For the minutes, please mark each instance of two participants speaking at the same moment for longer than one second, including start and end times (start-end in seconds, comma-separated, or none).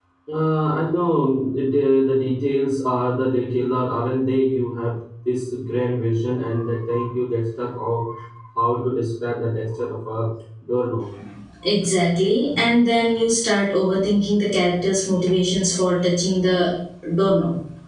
none